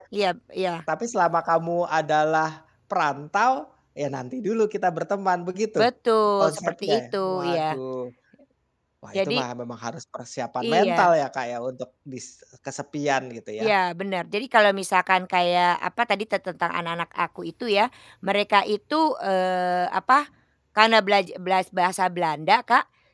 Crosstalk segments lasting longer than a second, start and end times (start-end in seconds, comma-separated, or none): 6.4-7.8